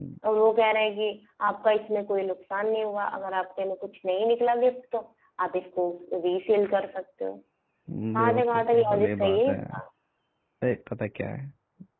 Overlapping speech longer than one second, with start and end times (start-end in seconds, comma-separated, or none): 8.2-9.6